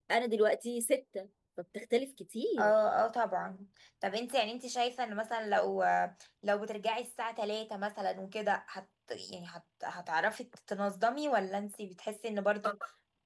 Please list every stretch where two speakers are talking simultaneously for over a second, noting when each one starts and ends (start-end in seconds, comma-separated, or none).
none